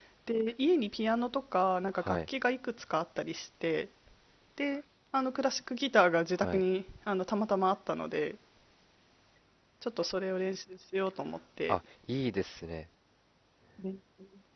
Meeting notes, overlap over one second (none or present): none